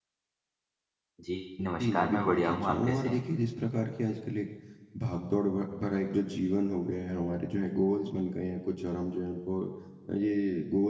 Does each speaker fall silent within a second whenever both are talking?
No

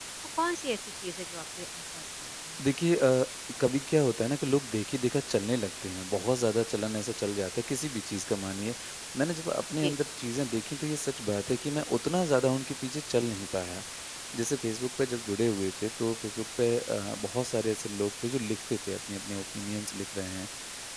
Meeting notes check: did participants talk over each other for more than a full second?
No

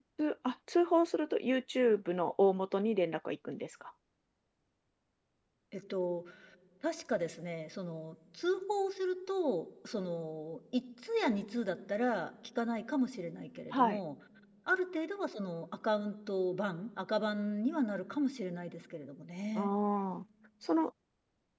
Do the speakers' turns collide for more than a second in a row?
No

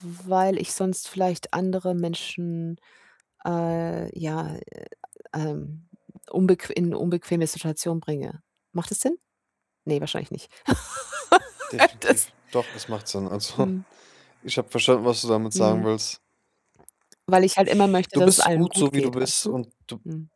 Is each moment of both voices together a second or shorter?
No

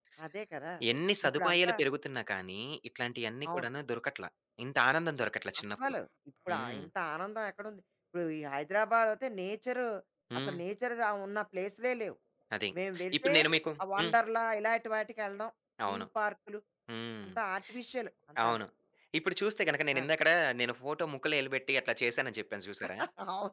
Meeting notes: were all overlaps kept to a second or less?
Yes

